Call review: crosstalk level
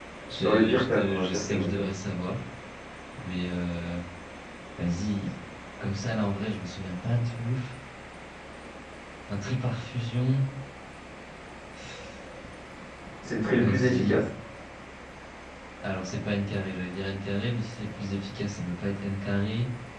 present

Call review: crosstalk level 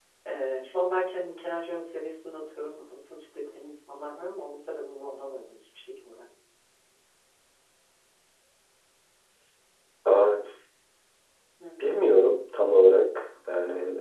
none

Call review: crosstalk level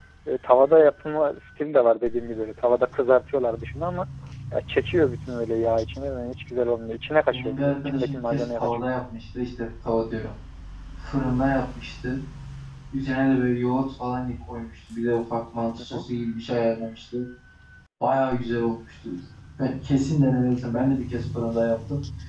present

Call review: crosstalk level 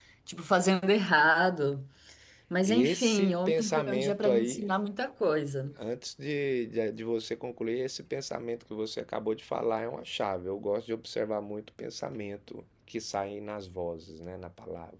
present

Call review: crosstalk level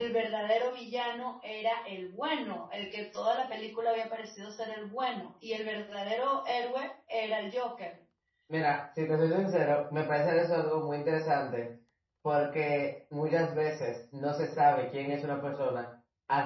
none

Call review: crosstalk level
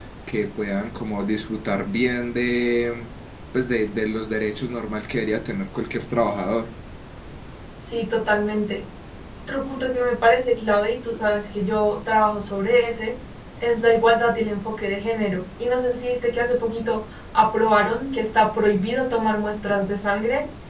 none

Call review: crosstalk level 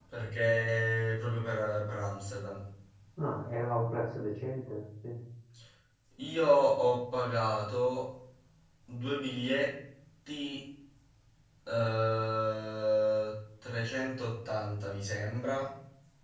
none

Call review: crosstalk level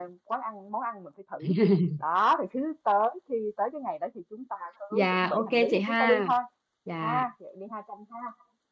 present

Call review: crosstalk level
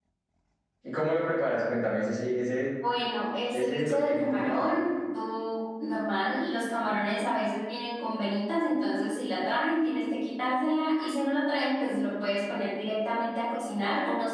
present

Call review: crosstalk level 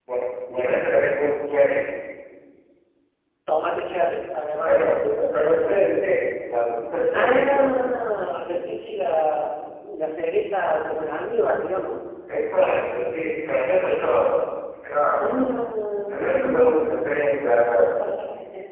present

